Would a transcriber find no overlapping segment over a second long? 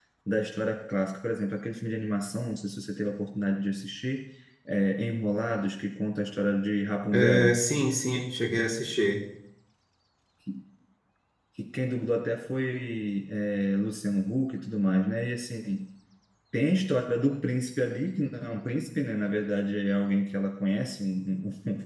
Yes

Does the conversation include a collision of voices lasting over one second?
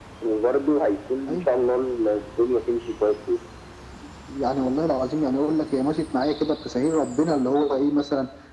No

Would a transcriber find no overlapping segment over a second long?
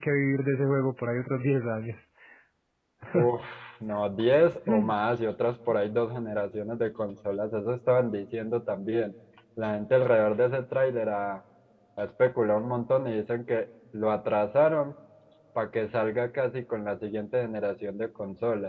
Yes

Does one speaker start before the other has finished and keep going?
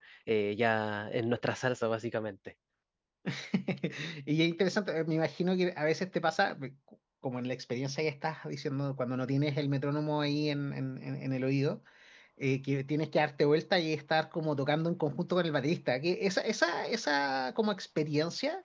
No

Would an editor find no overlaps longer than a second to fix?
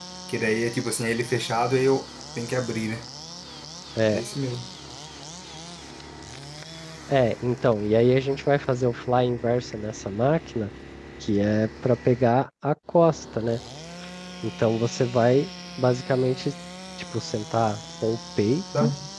Yes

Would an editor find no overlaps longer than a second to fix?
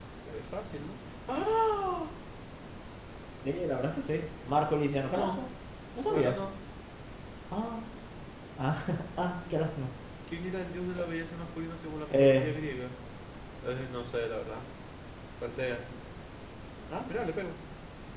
Yes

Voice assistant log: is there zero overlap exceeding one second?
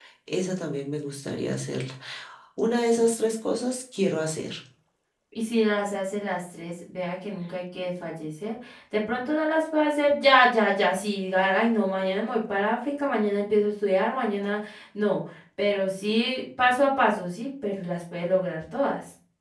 Yes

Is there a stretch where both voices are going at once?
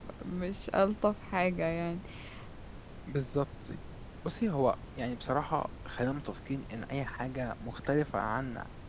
No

